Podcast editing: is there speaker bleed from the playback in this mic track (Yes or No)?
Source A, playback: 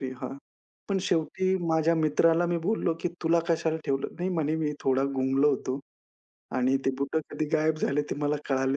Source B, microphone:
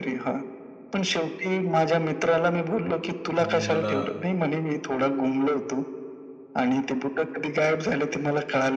Yes